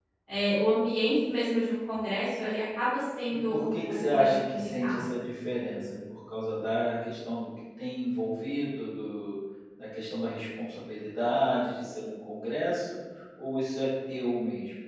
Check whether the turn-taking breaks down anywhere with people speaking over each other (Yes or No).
Yes